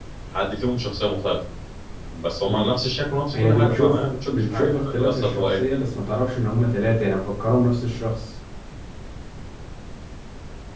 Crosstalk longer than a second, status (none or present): present